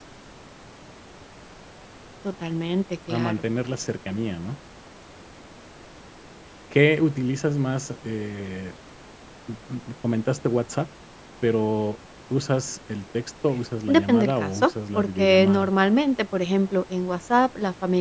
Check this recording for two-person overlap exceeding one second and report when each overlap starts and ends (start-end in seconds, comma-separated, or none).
13.9-15.7